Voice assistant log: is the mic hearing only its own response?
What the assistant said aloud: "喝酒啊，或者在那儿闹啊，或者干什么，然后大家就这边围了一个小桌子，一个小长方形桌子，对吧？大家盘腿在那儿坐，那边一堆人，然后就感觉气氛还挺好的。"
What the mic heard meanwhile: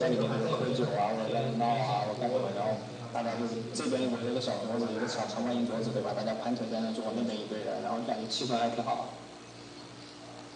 No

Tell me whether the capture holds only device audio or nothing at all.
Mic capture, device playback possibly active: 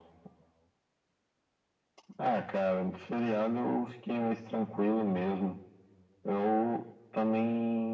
Yes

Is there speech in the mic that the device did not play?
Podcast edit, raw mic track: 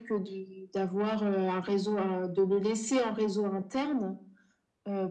No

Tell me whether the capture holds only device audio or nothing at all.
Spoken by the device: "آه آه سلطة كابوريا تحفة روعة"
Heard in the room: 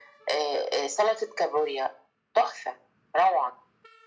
Yes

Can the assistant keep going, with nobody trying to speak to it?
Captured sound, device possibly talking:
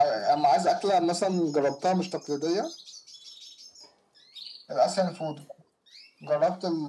Yes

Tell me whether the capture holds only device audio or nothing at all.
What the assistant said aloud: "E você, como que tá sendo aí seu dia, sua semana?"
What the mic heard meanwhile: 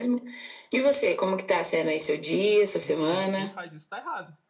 No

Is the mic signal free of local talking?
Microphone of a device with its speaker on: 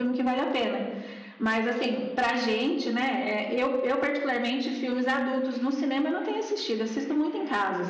No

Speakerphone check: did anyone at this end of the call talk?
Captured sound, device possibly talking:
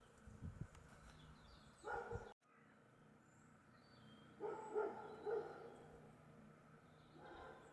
No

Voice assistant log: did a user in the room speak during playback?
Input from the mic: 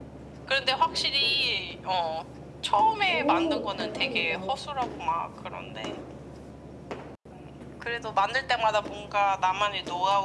Yes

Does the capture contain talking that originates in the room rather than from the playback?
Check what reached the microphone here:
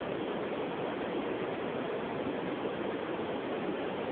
No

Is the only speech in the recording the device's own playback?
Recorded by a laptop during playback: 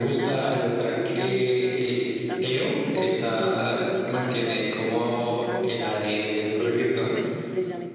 No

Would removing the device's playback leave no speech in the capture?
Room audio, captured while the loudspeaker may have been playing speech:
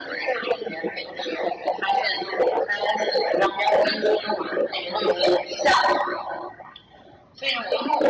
Yes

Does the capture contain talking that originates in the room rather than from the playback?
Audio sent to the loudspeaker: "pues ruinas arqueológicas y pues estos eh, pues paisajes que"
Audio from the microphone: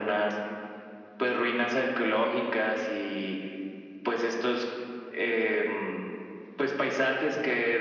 No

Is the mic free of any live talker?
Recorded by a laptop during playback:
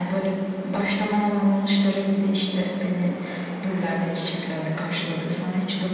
Yes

